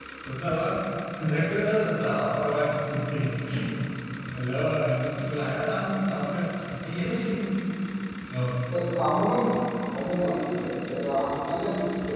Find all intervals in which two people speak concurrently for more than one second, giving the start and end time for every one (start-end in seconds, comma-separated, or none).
none